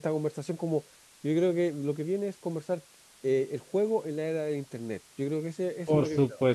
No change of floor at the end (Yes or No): No